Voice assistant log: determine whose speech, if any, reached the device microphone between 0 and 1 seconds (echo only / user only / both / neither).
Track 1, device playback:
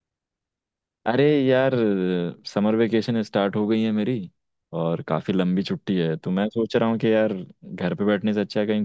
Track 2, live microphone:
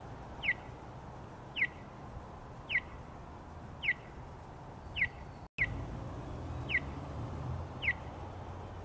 neither